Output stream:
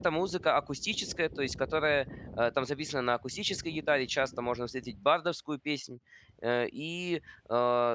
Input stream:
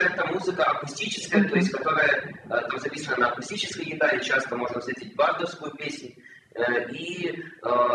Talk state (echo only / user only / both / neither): both